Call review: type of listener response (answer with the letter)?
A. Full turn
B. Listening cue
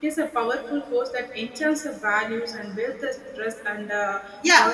A